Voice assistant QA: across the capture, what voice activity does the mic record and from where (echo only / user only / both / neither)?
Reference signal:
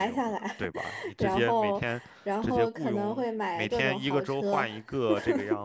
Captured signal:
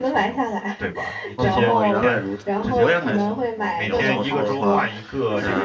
both